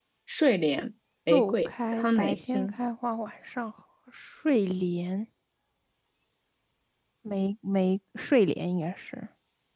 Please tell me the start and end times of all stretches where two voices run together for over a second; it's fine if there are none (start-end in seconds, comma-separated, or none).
1.3-2.7